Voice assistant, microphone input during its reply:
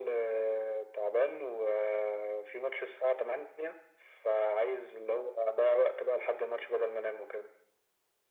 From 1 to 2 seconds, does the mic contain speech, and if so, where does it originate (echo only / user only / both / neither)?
echo only